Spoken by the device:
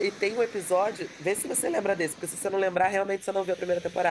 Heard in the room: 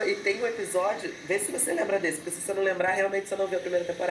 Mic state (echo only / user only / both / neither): echo only